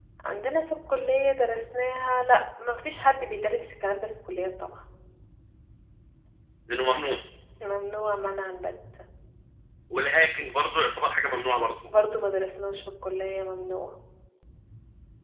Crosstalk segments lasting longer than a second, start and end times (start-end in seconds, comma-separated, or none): none